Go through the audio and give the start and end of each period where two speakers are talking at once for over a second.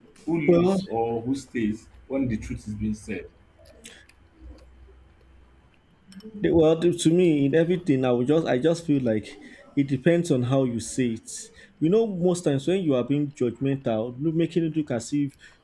none

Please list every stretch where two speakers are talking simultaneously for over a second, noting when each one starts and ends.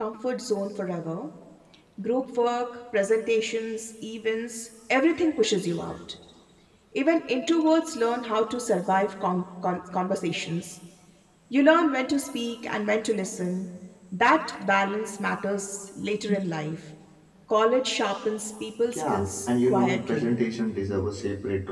18.9-20.4

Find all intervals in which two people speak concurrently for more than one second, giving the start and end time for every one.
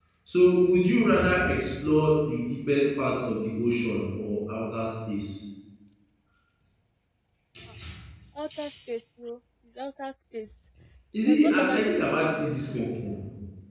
11.3-12.8

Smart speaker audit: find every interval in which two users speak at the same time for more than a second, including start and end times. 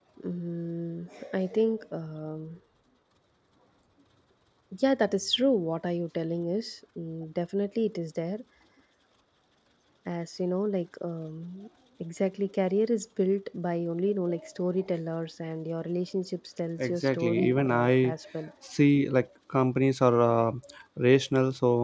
16.8-18.1

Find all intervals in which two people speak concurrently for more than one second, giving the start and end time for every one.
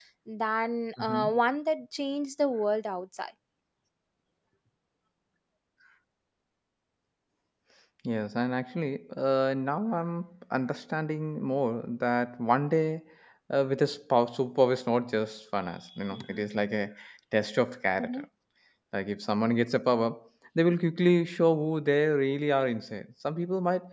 none

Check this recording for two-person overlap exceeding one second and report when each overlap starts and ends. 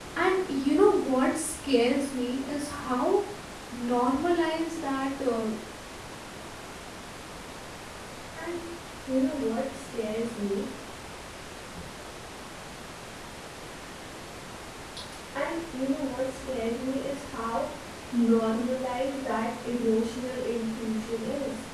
none

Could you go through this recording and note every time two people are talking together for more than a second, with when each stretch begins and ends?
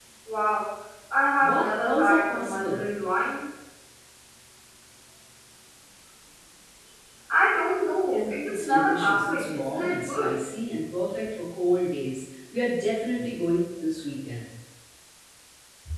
1.4-2.8, 8.1-10.3

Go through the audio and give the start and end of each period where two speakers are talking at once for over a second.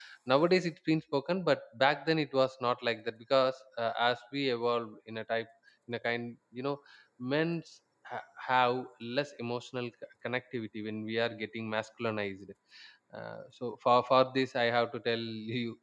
none

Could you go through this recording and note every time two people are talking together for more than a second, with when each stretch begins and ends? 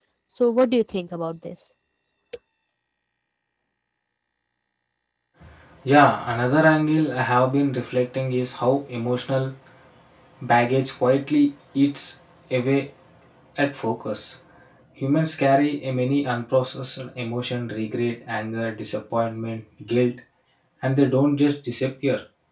none

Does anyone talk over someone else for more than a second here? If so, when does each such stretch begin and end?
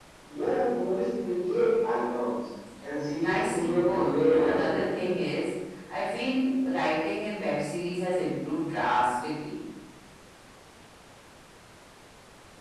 3.2-5.1

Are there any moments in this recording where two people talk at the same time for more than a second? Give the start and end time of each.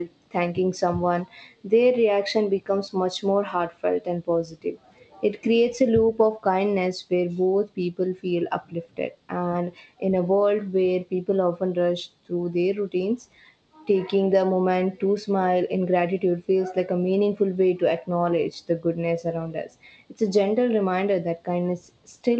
none

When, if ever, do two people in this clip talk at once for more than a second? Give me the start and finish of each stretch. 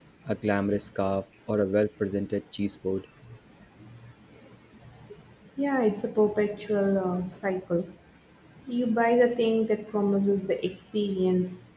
none

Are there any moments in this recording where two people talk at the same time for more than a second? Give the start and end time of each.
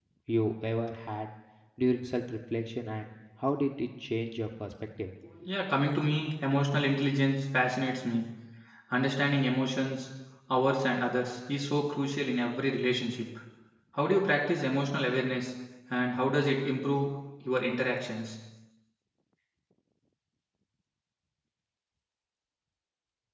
none

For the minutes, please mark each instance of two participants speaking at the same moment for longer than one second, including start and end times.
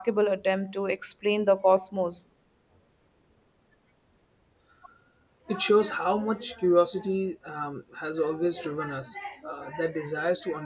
none

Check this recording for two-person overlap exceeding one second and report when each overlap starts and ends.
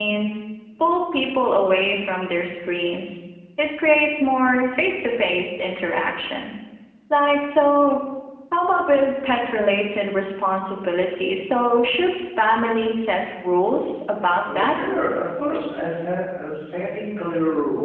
none

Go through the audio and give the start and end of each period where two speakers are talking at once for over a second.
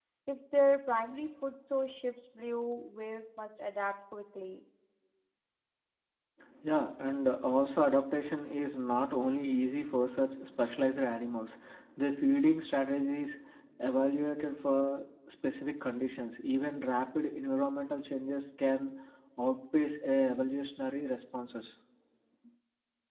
none

